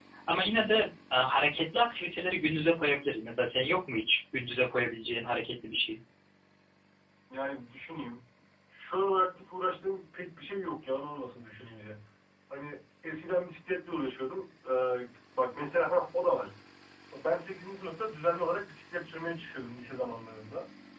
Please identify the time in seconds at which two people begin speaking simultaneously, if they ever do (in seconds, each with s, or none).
none